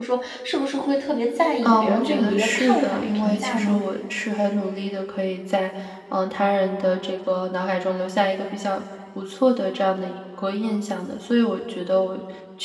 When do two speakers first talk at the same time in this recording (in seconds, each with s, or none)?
1.6 s